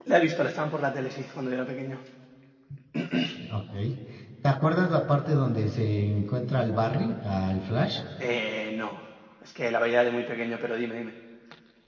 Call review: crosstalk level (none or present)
none